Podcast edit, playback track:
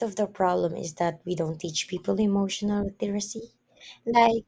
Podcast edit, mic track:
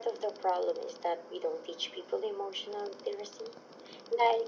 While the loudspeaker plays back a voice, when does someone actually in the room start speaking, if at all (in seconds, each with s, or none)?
none